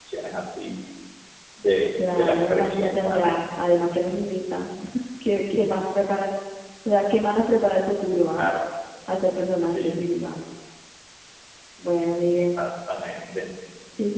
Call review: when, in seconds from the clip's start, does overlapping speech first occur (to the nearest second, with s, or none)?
2 s